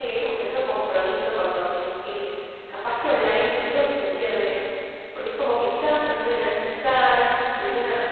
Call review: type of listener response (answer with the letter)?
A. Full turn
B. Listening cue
B